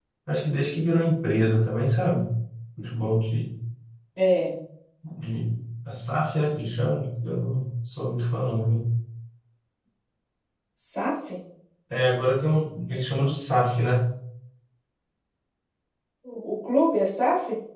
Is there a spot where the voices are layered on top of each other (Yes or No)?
No